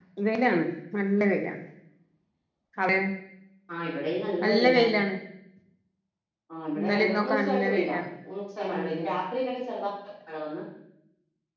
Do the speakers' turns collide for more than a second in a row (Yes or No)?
Yes